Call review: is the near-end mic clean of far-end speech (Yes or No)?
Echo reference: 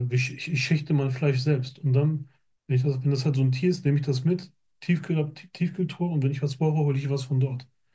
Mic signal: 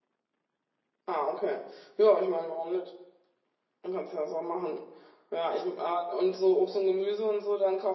Yes